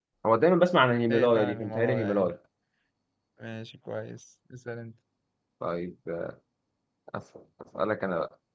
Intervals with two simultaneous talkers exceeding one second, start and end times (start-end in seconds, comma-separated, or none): 1.1-2.3